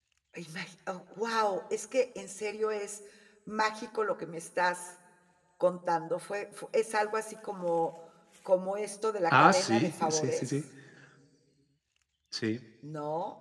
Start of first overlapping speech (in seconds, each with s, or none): 9.3 s